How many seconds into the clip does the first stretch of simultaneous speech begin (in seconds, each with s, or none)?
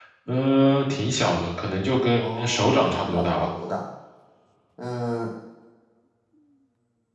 2.2 s